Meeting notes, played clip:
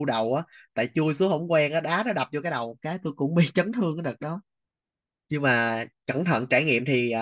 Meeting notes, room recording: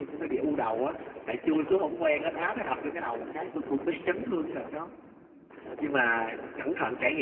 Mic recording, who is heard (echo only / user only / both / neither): echo only